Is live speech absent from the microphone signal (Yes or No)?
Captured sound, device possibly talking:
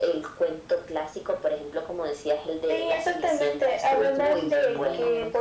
No